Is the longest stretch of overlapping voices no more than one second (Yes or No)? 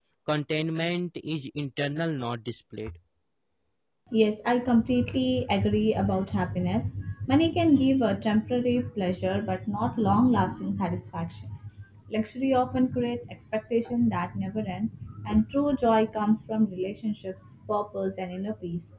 Yes